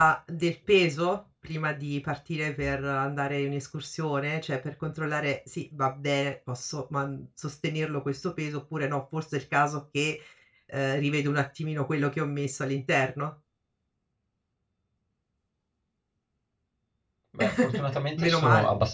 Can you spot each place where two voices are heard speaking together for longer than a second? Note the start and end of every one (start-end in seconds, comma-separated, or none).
none